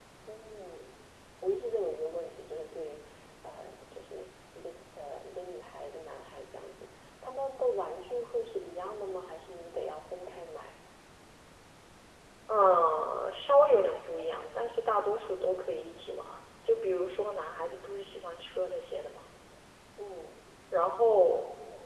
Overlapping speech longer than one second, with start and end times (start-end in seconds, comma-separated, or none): none